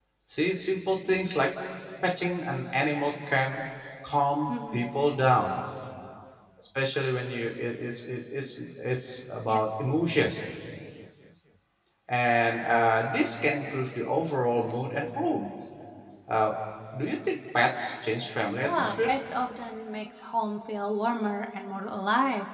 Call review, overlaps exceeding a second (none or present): none